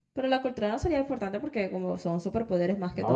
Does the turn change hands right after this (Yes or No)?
Yes